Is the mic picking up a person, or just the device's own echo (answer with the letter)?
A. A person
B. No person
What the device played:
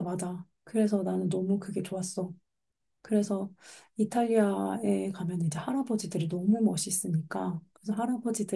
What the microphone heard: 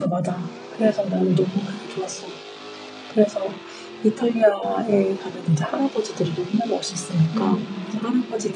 A